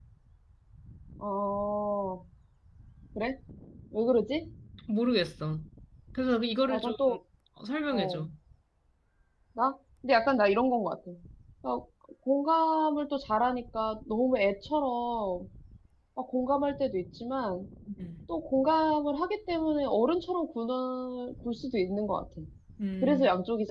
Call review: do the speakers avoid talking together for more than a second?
Yes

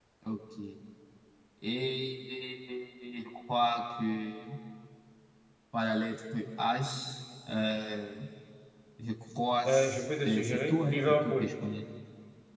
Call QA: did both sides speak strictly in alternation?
No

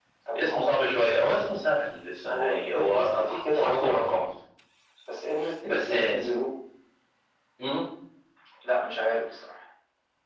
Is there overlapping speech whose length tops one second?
Yes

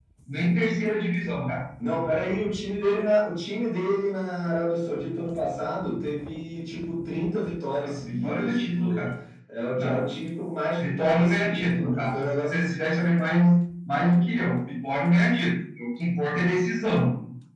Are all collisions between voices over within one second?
No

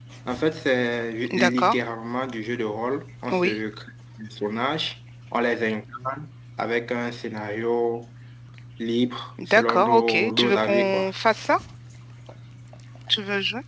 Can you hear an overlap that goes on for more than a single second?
Yes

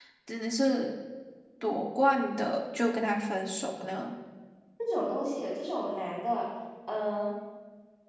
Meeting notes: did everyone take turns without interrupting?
Yes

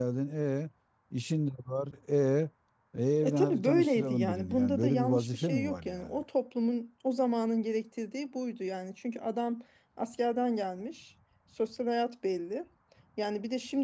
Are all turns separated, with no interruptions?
No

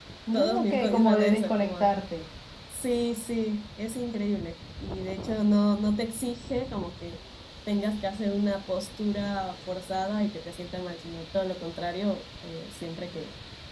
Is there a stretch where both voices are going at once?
Yes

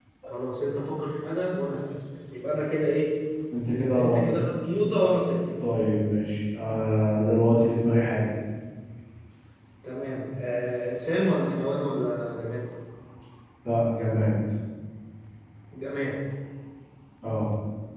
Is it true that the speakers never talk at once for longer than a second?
Yes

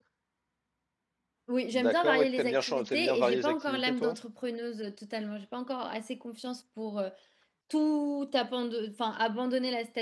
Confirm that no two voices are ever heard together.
No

